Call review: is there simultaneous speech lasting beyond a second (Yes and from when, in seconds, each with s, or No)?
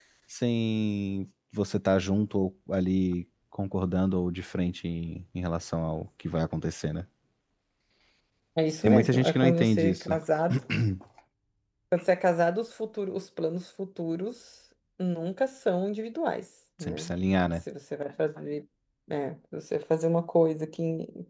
Yes, from 8.8 s